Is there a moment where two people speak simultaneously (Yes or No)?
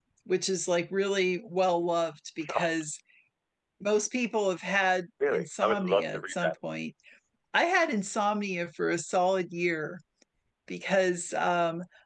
Yes